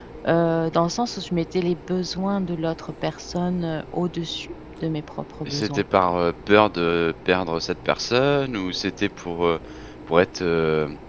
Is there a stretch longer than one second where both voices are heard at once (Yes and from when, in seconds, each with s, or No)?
No